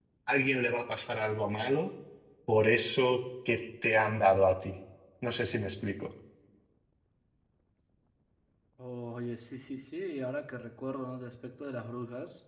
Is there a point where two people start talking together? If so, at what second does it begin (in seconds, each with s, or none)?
none